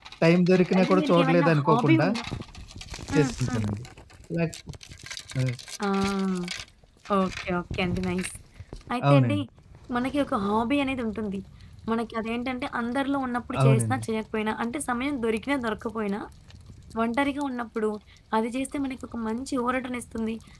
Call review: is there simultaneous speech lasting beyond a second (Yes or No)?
Yes